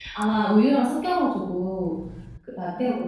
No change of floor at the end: Yes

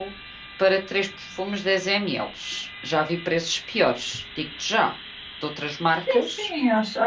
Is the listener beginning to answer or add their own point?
Yes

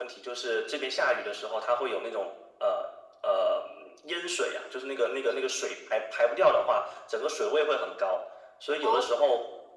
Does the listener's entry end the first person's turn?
No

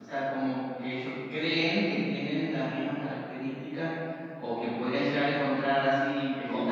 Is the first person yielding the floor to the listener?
No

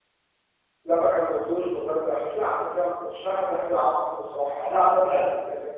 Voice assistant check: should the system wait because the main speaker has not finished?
No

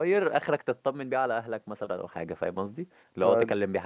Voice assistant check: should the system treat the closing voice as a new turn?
No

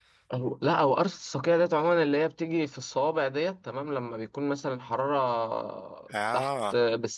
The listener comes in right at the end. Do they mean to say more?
No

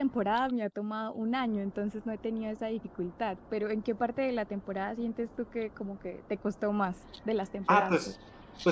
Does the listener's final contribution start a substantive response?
Yes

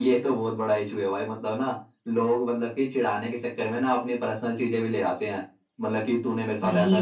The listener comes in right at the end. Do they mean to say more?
No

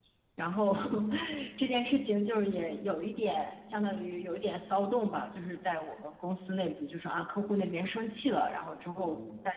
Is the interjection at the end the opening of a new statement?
No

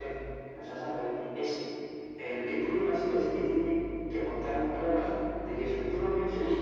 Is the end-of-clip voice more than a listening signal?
Yes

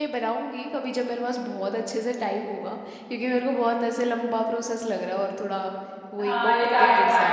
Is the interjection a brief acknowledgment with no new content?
No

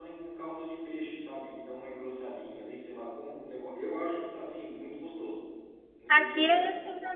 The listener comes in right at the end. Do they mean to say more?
Yes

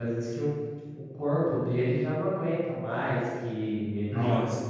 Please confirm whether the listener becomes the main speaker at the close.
No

